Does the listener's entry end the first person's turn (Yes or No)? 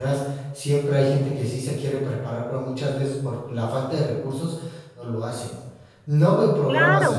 Yes